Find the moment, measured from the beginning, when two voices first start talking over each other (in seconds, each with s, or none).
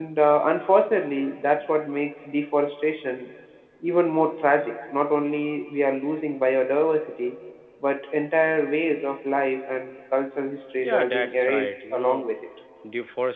10.8 s